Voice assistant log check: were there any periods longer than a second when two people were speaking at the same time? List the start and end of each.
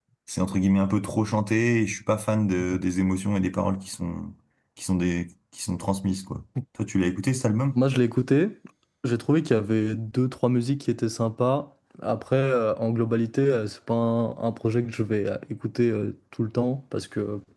none

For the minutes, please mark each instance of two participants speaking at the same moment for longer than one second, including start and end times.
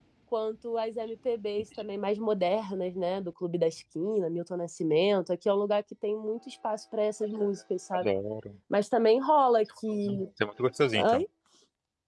none

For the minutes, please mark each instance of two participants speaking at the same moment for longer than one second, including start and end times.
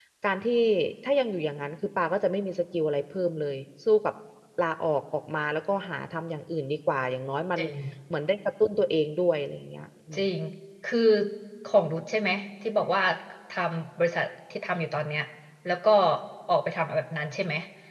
none

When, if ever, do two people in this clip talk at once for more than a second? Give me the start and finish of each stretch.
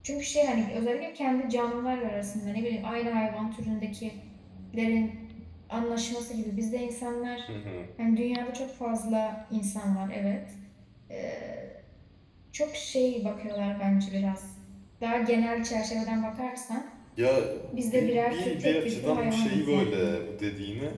17.9-20.0

